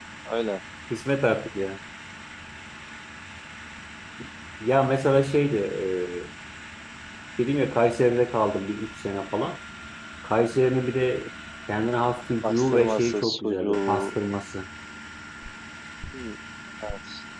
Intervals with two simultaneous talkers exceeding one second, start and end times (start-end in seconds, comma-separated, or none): 12.4-14.2